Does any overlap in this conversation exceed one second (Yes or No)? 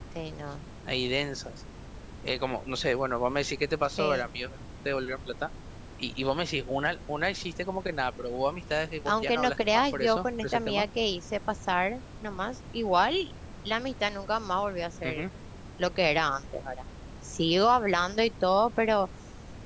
Yes